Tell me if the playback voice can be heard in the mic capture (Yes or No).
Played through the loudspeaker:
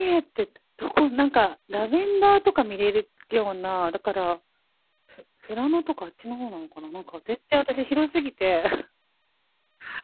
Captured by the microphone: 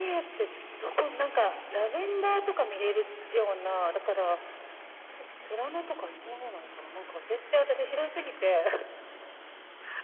Yes